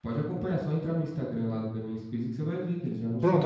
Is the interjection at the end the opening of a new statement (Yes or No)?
Yes